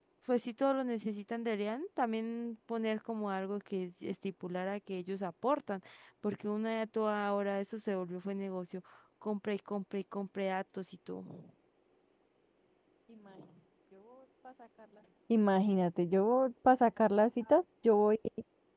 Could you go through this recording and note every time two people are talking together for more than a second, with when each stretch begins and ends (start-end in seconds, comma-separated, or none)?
none